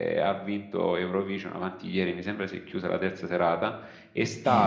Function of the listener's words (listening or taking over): listening